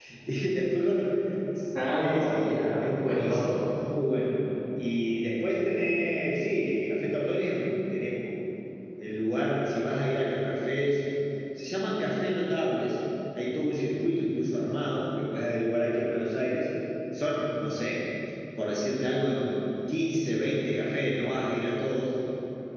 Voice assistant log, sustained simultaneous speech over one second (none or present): present